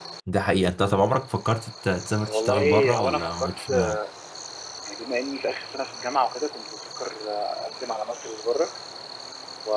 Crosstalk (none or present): present